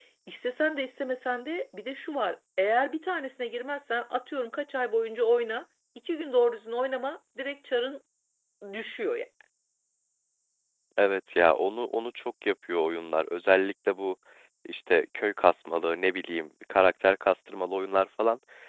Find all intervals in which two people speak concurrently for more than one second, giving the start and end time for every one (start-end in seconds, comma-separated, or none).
none